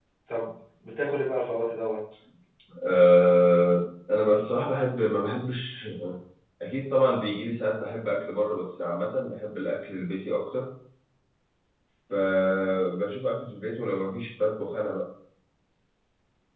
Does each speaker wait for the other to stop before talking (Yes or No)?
Yes